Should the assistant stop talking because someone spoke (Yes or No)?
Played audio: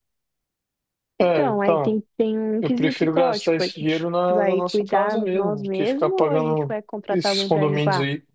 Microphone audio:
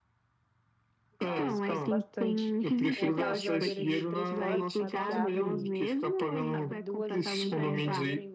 Yes